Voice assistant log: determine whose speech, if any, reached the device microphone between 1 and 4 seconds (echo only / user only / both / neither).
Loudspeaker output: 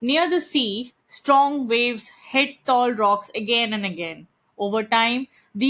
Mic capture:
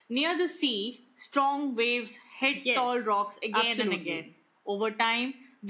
both